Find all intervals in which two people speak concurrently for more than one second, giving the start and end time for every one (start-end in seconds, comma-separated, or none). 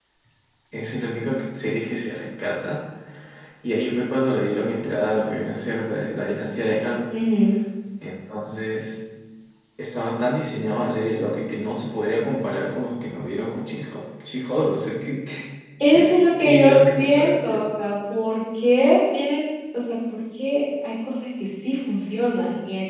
16.4-17.7